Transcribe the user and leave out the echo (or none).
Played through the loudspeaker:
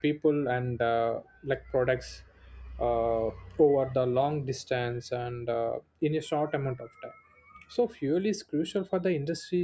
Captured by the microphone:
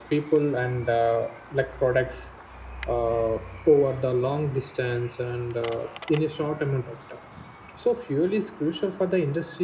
none